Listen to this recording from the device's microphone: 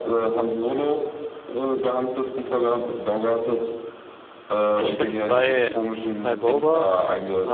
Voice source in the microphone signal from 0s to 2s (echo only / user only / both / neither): echo only